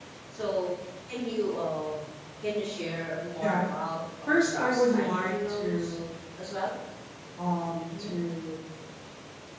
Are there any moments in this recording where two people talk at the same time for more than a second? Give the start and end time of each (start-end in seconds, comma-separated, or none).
4.3-6.0